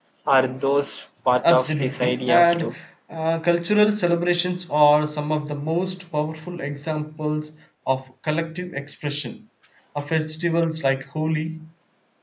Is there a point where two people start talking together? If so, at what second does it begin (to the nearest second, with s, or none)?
1 s